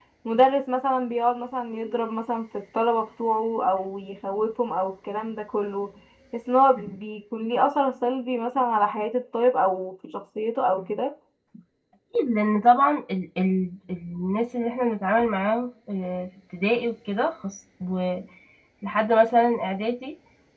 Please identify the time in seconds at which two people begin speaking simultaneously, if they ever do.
none

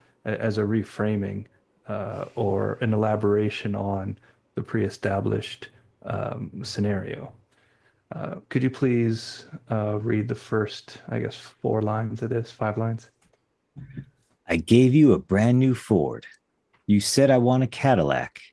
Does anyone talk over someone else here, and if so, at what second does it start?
none

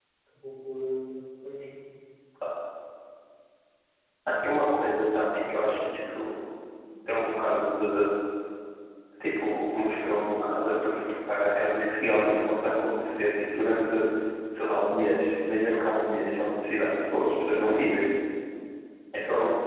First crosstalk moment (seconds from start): none

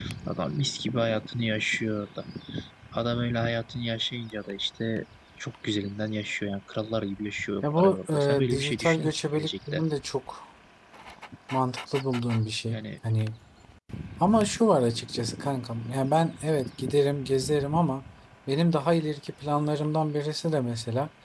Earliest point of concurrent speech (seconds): 7.6 s

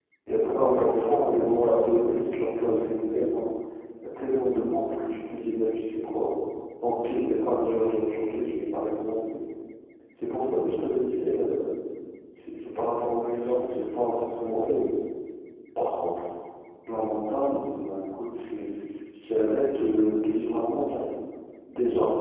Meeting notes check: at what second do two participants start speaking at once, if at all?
0.5 s

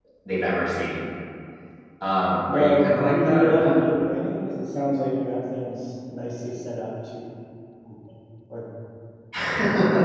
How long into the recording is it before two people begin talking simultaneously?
2.5 s

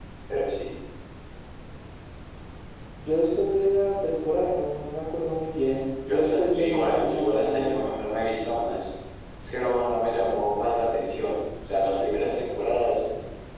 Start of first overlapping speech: 6.1 s

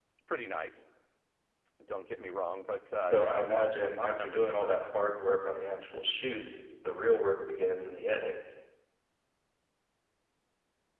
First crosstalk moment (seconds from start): 3.0 s

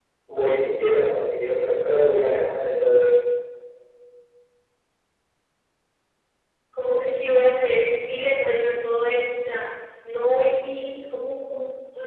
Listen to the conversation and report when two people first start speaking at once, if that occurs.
none

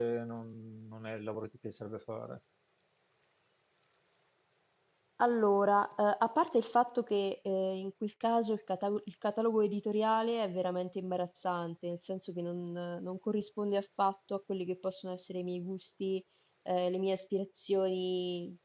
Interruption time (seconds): none

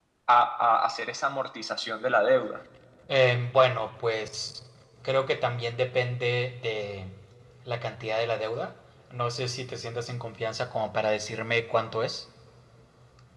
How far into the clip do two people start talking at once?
none

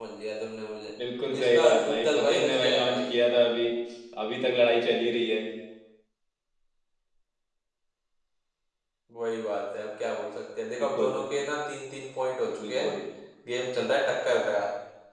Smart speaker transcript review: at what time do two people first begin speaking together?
1.4 s

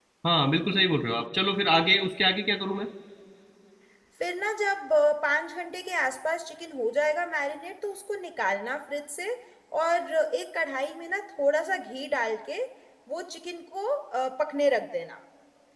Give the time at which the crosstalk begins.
none

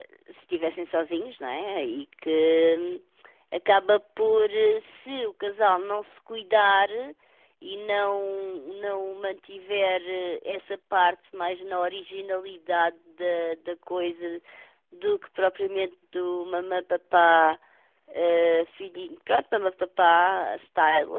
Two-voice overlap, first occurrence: none

